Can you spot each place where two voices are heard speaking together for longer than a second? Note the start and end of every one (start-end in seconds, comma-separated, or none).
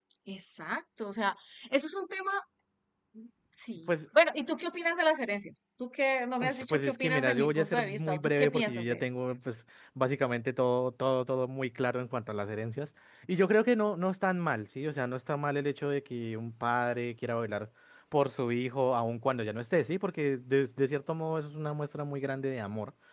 6.4-9.1